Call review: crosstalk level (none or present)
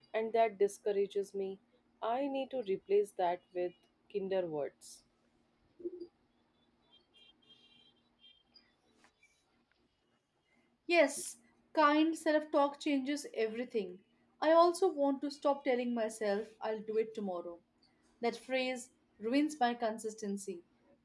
none